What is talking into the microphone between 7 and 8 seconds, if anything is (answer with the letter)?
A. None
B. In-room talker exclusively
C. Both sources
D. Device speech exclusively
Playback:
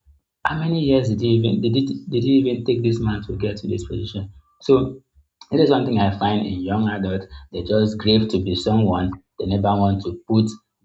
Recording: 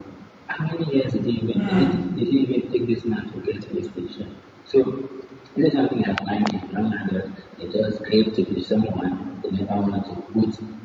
D